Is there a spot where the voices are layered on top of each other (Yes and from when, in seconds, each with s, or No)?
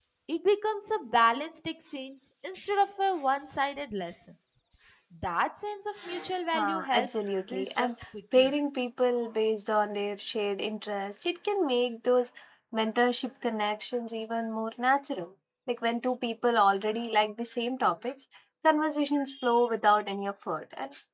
Yes, from 6.5 s